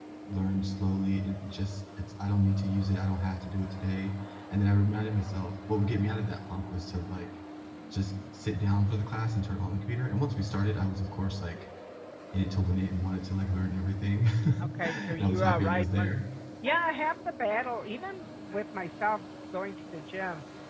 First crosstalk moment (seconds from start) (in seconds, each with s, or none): 14.8 s